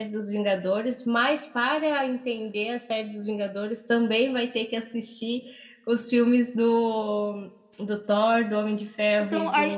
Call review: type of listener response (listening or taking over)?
taking over